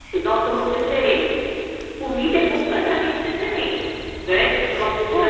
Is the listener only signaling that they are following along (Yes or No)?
No